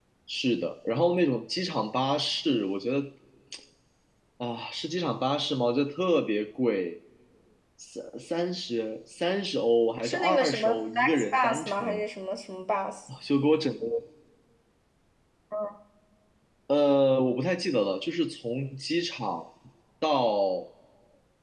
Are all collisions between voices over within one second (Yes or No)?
No